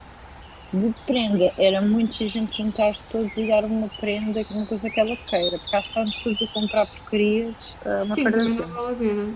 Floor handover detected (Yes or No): Yes